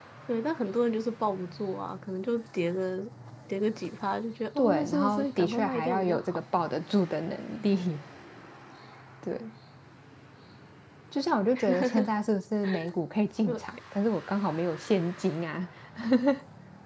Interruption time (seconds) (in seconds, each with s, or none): 4.6 s